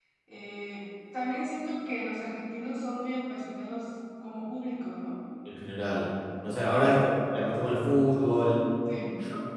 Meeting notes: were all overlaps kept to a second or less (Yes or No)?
Yes